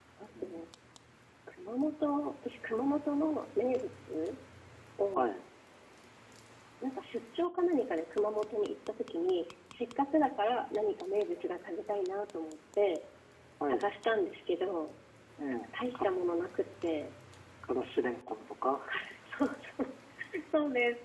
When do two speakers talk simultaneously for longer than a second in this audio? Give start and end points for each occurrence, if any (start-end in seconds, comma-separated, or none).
none